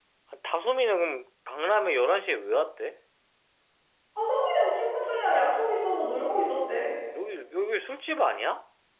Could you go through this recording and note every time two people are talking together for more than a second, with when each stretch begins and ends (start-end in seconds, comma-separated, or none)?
none